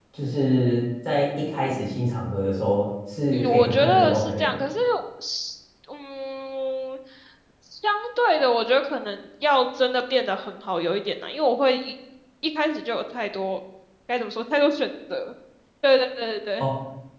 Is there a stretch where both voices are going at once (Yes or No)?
Yes